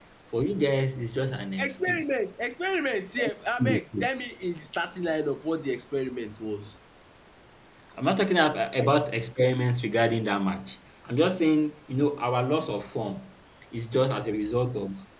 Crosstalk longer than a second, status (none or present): none